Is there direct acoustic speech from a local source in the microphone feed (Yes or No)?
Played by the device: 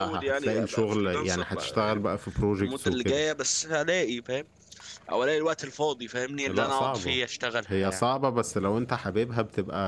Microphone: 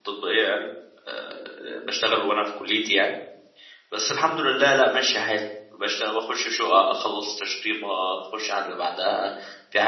Yes